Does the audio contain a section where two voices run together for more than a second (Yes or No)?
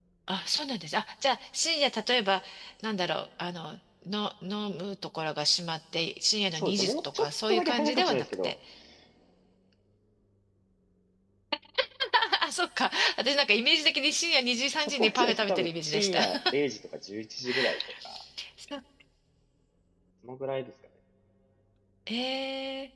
Yes